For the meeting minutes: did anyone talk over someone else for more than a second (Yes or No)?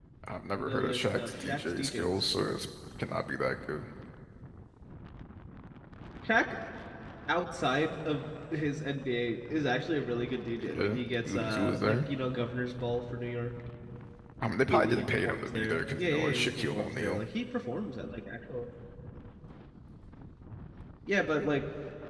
Yes